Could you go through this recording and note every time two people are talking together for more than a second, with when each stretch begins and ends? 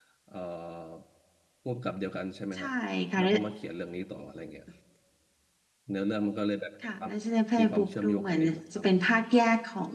7.6-9.0

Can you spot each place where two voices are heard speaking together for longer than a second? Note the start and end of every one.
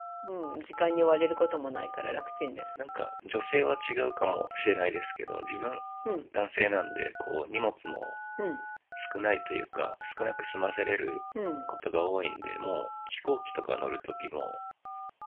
none

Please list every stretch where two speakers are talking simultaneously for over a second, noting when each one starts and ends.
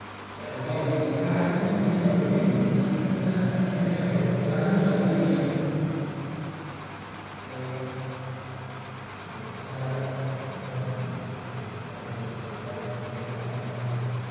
0.6-3.4, 3.8-5.0

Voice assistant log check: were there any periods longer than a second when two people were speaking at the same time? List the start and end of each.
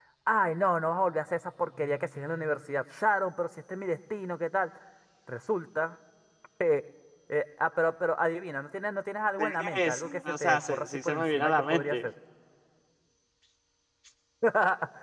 9.4-12.1

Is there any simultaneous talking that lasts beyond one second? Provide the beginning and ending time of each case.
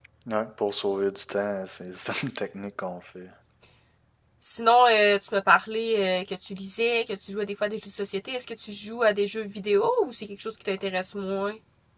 none

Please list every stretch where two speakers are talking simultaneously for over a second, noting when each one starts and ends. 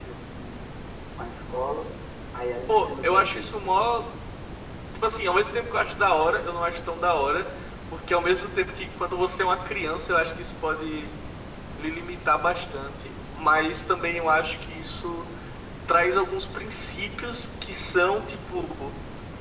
2.7-3.9

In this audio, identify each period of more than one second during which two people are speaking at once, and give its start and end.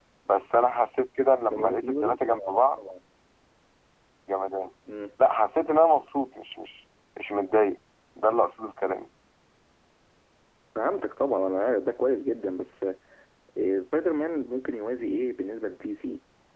1.5-2.8

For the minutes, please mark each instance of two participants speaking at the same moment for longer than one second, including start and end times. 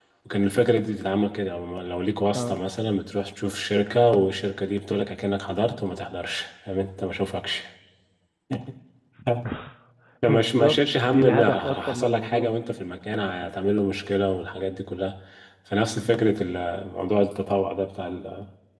10.3-12.5

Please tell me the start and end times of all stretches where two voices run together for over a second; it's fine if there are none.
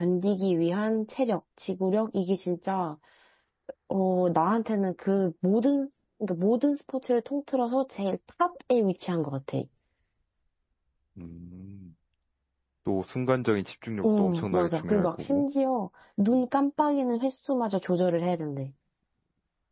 14.0-15.4

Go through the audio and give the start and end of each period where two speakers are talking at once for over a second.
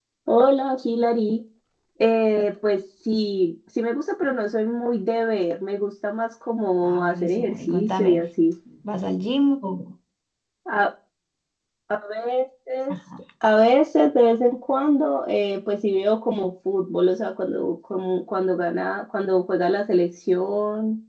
6.8-8.2

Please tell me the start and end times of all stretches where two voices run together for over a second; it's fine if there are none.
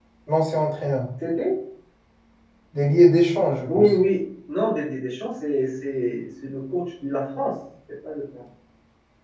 none

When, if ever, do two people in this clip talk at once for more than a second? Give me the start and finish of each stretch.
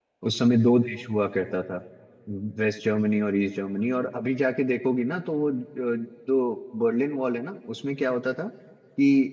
none

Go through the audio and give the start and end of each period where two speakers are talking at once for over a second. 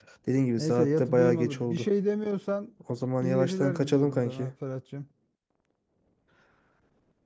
0.6-1.9, 3.2-4.5

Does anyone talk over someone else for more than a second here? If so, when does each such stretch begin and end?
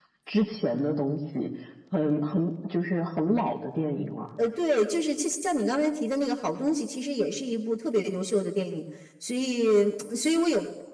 none

